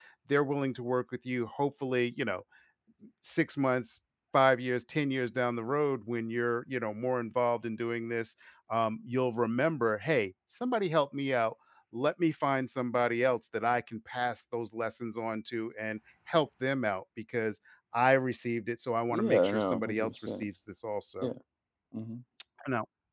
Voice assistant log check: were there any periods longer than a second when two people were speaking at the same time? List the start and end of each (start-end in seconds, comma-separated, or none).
19.1-20.4